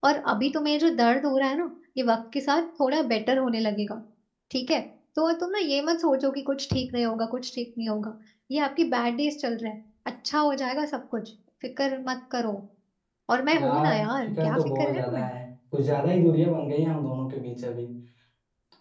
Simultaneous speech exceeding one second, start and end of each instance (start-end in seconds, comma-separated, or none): 13.5-15.3